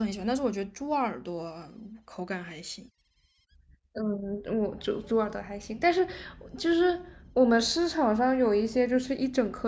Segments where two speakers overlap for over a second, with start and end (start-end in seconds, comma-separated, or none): none